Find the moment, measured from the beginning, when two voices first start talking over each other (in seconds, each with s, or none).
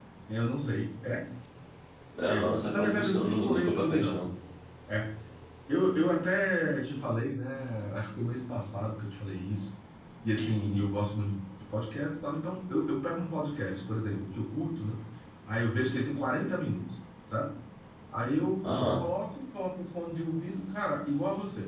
2.2 s